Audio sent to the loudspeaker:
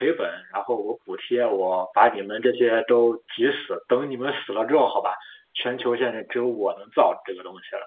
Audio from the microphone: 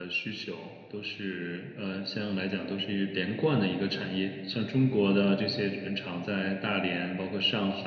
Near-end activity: present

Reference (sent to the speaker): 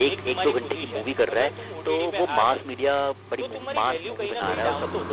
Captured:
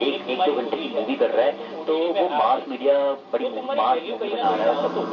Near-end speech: none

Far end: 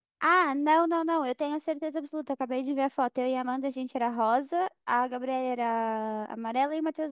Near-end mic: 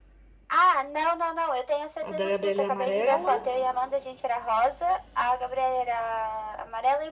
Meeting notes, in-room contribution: present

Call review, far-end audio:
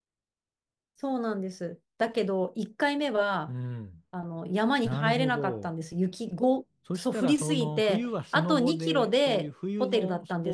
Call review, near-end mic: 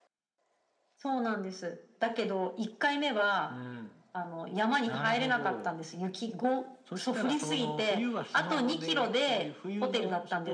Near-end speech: none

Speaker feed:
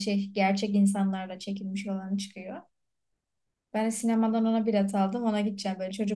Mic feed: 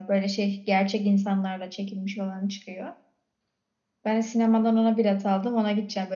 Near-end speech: none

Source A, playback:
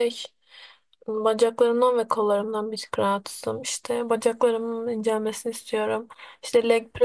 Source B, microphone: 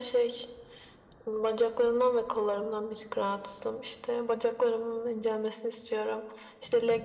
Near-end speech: none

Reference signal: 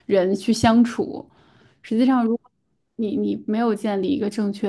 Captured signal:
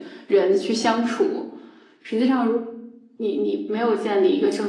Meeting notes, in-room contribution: none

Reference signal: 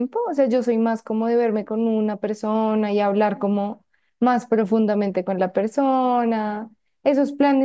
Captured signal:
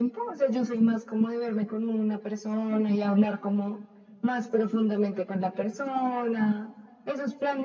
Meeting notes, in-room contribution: none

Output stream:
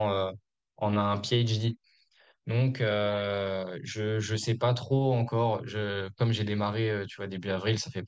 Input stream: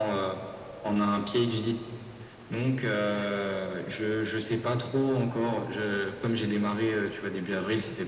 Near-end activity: none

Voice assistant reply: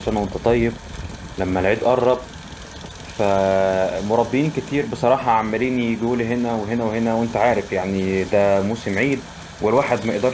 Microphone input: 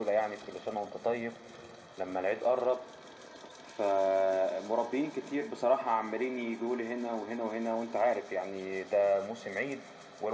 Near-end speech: none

